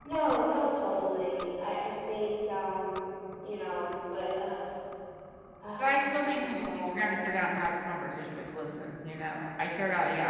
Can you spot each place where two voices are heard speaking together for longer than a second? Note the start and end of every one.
5.8-7.1

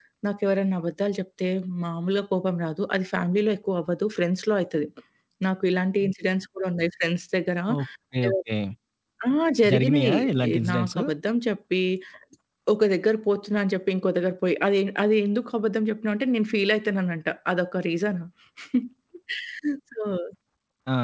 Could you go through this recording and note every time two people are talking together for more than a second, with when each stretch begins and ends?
9.7-11.0

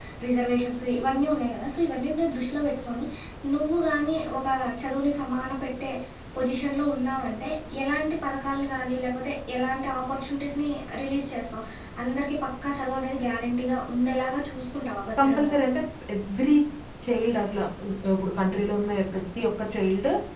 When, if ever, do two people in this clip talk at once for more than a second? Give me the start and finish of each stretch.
none

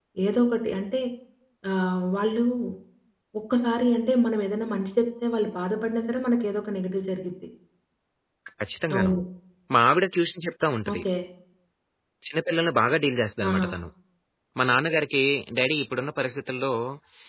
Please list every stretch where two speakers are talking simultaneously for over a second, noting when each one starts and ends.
none

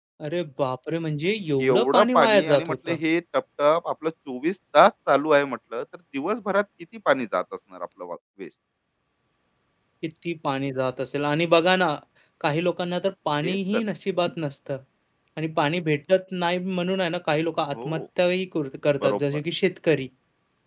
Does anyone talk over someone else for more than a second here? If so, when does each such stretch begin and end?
1.6-3.0

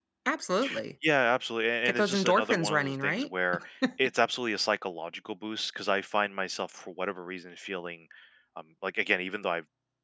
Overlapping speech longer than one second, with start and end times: 1.8-3.3

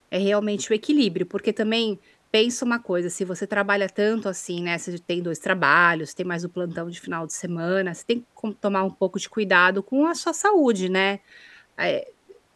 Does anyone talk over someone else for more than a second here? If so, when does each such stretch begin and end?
none

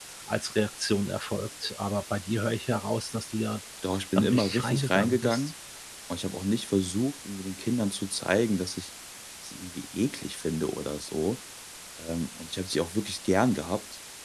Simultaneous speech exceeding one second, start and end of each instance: 4.2-5.5

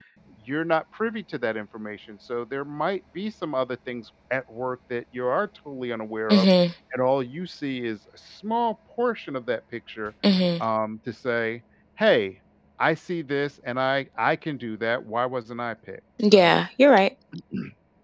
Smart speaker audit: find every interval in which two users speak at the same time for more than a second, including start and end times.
none

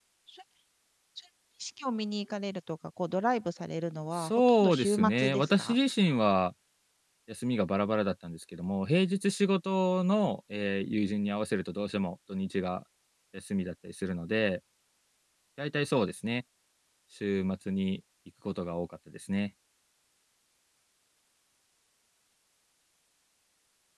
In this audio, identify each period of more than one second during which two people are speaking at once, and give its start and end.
4.1-5.8

